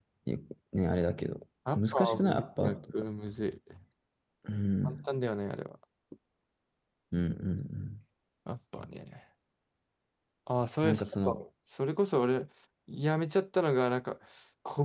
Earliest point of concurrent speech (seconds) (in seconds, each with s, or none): 1.8 s